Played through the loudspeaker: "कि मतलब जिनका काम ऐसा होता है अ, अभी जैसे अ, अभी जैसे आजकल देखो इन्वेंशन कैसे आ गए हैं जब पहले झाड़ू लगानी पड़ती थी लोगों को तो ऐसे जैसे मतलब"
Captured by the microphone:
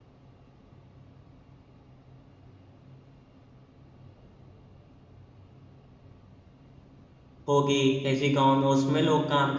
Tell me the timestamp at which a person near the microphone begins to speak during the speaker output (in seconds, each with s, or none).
7.5 s